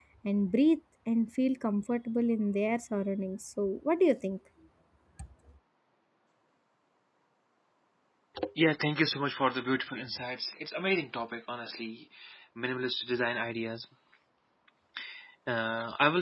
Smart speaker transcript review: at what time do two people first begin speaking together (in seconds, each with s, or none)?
none